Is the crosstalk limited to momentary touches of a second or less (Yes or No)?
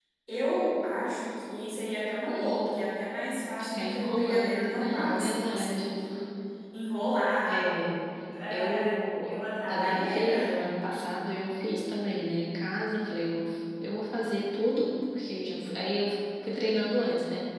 No